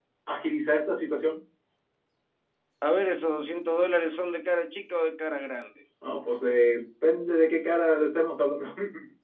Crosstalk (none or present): none